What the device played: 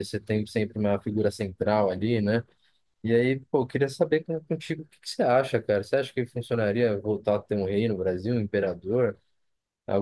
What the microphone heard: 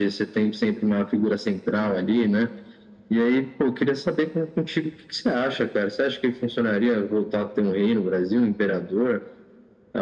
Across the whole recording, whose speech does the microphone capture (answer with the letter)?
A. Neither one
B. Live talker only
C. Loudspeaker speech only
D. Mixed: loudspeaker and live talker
C